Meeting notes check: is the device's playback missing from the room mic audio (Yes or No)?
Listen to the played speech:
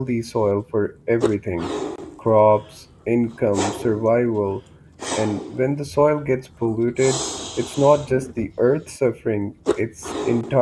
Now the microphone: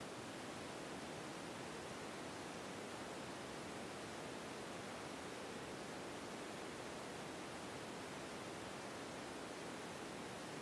Yes